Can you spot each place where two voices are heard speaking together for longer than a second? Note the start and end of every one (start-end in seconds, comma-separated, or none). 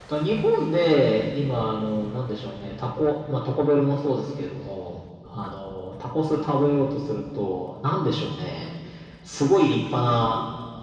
none